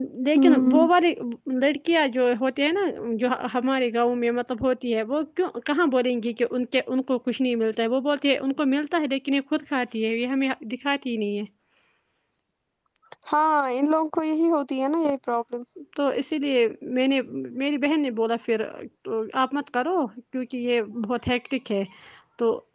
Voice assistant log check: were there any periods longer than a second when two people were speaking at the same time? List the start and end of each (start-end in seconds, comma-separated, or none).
none